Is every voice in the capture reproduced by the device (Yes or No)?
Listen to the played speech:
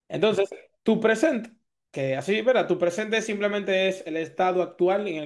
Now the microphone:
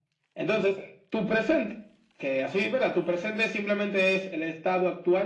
Yes